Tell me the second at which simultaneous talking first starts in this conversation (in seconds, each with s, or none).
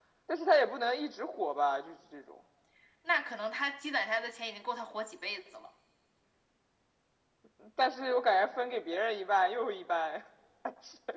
none